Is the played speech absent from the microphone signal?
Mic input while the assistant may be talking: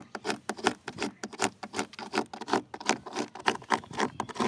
Yes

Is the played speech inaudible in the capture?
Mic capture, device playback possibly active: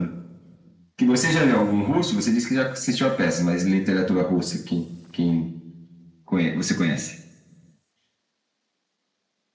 No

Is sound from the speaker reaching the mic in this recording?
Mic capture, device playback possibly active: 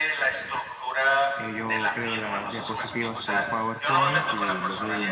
Yes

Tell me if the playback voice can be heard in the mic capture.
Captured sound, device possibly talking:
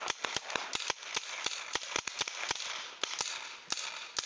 No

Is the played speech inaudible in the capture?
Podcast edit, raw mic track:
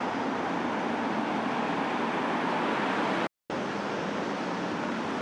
Yes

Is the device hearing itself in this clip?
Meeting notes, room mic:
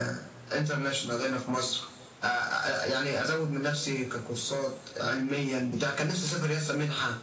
Yes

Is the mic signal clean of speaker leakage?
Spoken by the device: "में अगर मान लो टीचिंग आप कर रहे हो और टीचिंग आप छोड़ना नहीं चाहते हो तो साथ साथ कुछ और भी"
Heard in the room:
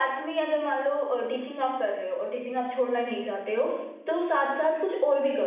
No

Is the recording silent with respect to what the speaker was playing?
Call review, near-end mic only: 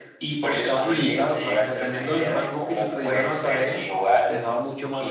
No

